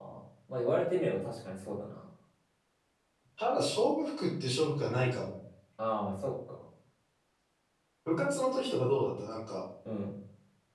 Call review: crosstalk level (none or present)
none